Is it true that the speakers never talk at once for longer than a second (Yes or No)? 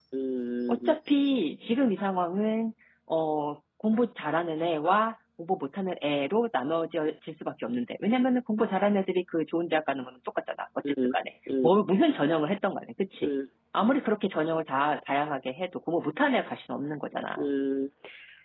Yes